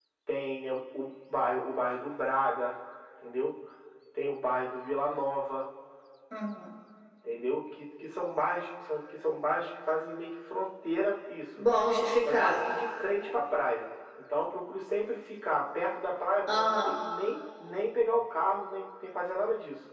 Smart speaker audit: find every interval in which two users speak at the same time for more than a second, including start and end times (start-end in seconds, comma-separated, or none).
none